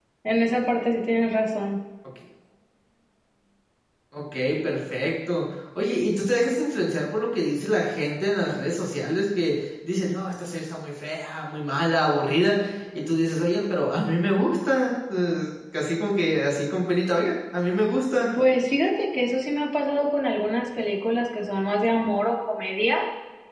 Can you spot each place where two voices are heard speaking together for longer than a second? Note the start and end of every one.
none

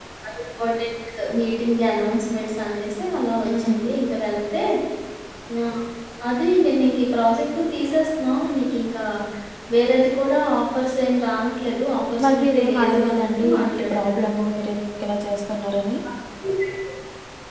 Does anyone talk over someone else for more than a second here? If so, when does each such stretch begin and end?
12.2-14.1

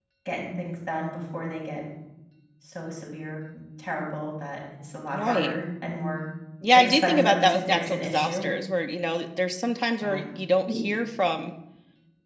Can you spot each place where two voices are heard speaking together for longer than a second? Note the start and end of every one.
6.7-8.5

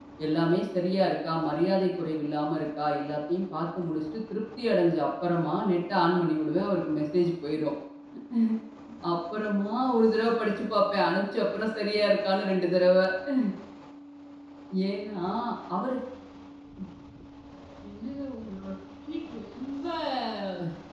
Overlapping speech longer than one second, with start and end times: none

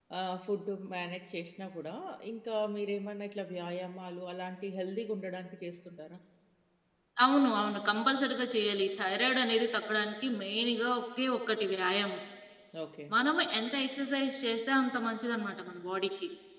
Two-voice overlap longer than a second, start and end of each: none

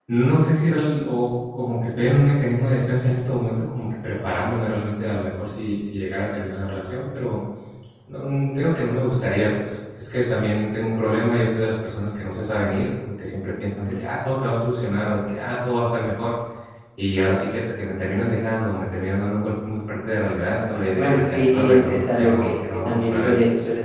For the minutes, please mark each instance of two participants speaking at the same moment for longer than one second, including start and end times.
20.7-23.3

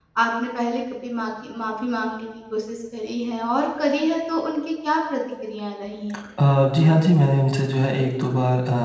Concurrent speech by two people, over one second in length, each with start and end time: none

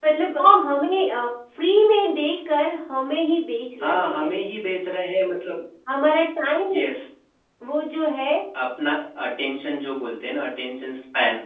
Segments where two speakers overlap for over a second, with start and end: none

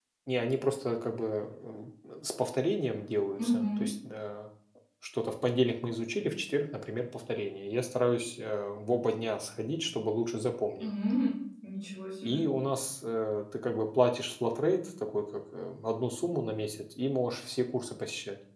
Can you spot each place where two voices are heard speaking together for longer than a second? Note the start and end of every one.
none

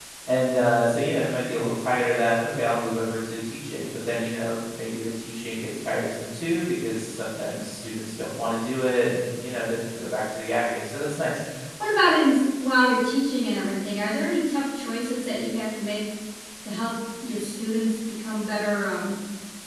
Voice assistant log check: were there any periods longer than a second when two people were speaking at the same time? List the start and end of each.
none

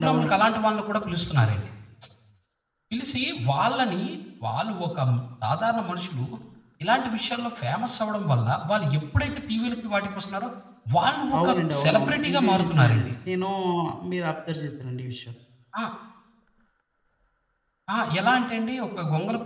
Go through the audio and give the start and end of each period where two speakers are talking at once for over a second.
11.4-13.1

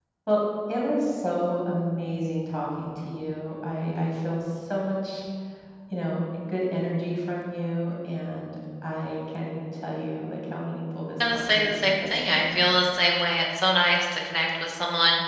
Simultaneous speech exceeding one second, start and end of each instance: 11.2-12.5

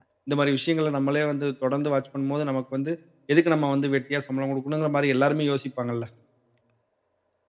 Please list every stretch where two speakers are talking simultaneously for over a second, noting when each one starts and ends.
none

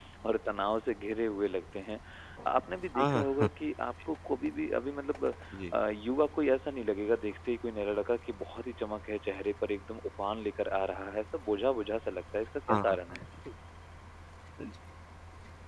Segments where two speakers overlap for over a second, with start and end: none

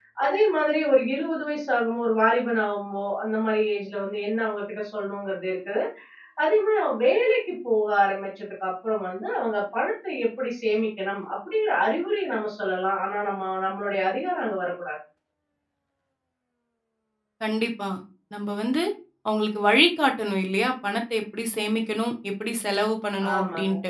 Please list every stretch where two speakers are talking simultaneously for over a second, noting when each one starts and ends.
none

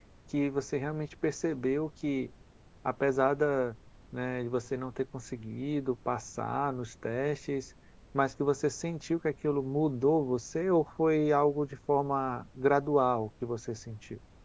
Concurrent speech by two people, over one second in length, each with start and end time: none

